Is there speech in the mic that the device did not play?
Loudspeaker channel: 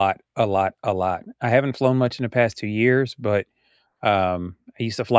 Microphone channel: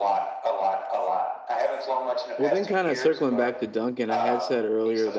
Yes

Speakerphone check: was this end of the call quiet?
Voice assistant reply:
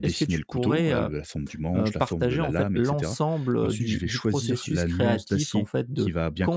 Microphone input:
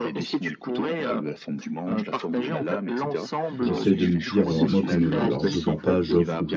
No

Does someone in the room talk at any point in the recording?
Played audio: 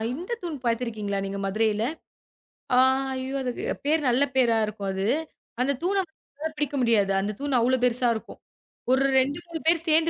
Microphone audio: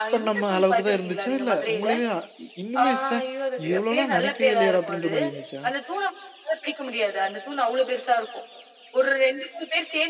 Yes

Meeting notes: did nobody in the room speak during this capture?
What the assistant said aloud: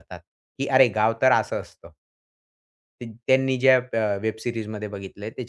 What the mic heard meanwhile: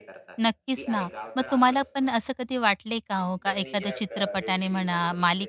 No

